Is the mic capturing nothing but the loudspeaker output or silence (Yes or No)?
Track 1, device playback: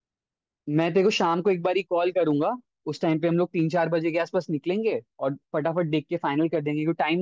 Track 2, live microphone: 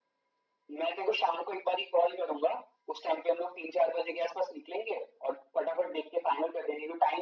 Yes